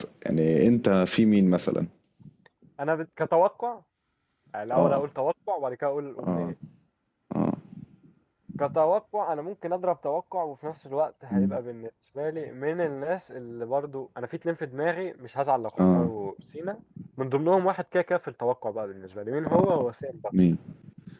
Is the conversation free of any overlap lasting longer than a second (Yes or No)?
Yes